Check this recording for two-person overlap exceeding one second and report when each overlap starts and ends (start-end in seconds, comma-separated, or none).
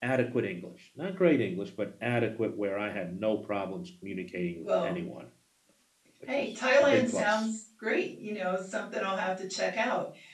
6.3-7.5